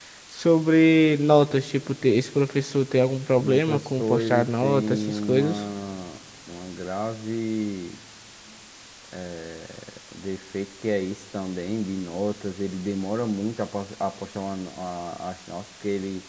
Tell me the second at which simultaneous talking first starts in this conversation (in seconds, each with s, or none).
3.4 s